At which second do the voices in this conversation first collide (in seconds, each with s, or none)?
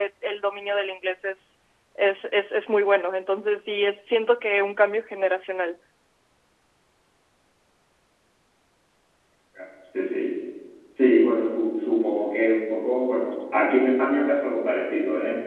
none